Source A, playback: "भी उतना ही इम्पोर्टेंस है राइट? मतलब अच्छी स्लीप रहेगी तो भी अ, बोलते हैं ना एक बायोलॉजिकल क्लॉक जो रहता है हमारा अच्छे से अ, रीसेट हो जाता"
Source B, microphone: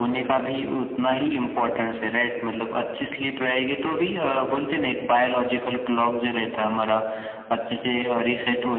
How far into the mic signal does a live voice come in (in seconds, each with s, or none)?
none